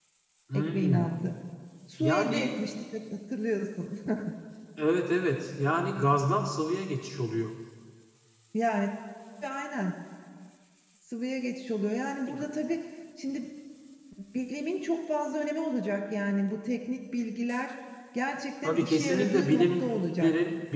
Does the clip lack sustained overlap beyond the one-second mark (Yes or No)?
No